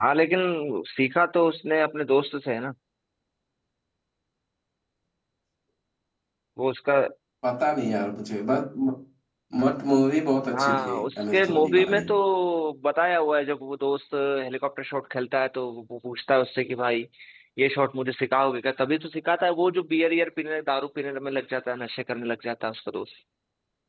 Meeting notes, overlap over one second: present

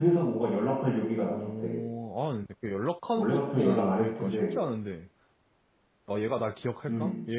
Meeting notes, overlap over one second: present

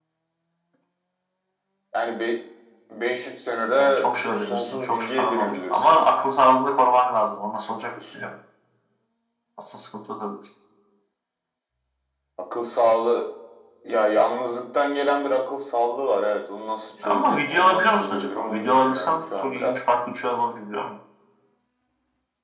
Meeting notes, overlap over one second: present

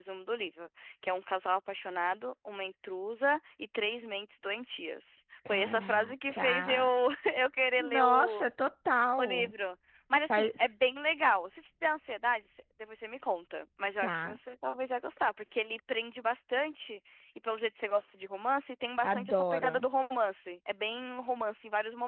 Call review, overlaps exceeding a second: present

